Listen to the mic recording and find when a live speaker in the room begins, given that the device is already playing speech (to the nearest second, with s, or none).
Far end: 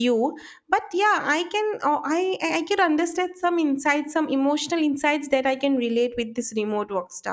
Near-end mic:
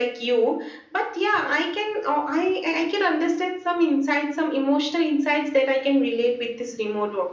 none